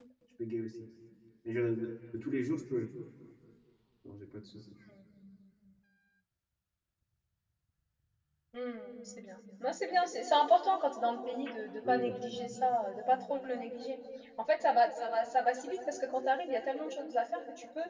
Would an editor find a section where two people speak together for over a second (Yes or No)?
No